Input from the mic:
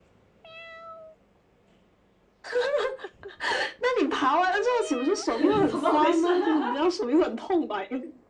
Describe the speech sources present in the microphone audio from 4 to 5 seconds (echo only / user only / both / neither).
echo only